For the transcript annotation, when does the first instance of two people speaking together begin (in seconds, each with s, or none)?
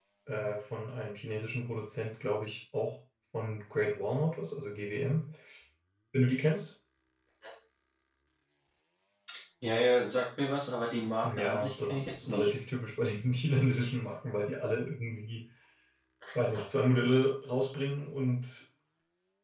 11.2 s